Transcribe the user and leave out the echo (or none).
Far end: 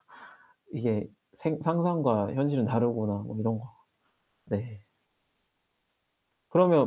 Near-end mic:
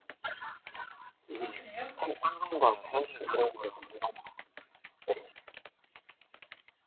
아 그래요?